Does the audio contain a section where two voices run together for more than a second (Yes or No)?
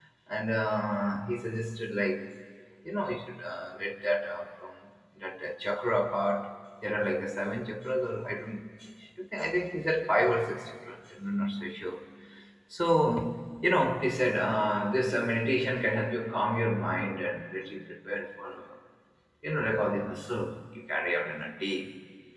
No